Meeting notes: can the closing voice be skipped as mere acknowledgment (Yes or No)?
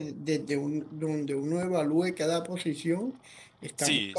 No